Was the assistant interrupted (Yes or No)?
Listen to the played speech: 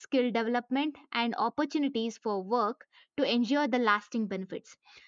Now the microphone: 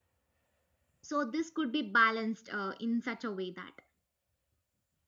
Yes